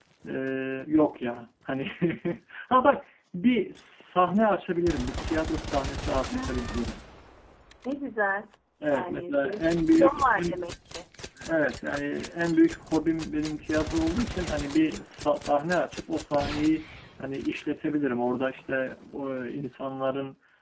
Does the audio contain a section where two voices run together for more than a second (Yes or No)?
Yes